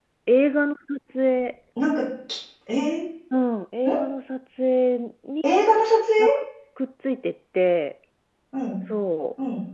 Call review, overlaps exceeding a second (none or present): none